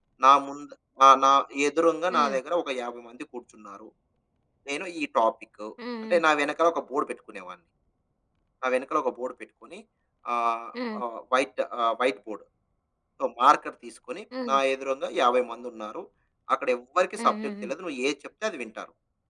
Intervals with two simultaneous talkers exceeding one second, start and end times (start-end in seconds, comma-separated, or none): none